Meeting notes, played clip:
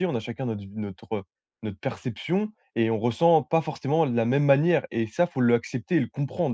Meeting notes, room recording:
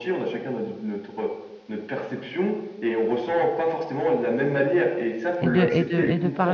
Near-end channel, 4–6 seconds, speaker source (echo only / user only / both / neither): both